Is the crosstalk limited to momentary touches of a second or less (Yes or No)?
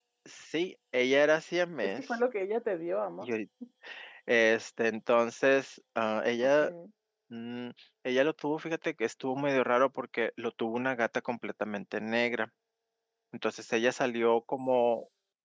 Yes